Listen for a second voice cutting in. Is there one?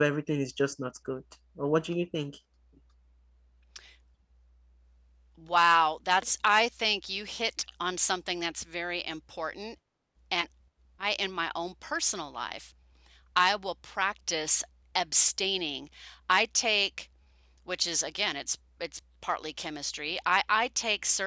No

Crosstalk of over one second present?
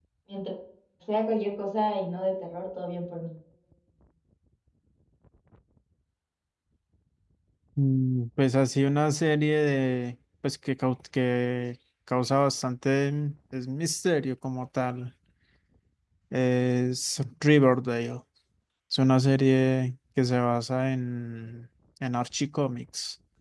No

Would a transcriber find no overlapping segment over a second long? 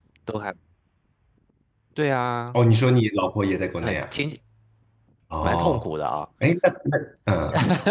Yes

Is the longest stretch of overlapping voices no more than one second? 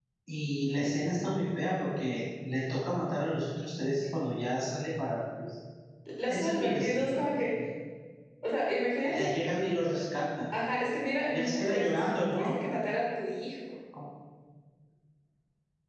No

